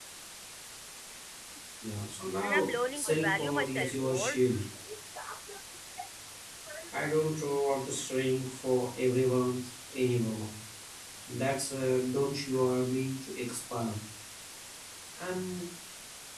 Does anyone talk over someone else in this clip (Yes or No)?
Yes